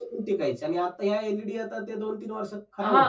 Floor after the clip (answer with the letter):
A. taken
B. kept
A